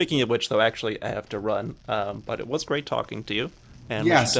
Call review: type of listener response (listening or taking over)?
taking over